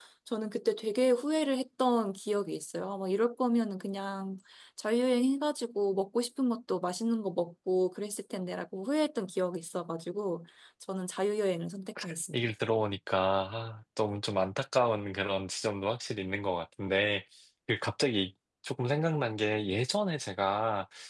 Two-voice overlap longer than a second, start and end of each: none

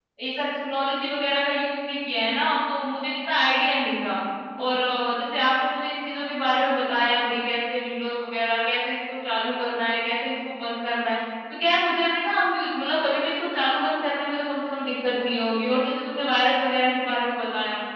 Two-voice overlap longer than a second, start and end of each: none

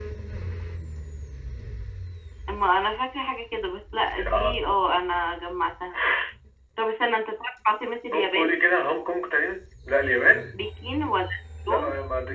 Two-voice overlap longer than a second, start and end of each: none

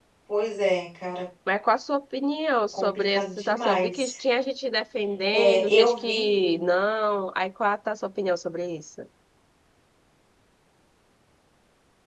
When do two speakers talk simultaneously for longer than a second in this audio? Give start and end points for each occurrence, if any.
2.7-4.1, 5.3-6.6

